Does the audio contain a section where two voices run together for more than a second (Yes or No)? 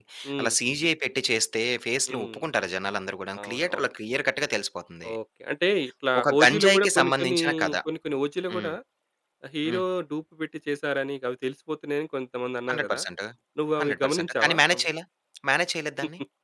Yes